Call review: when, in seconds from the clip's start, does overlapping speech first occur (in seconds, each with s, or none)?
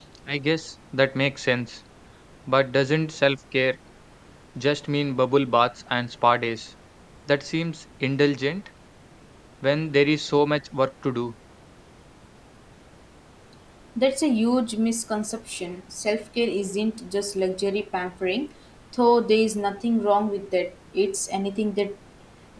none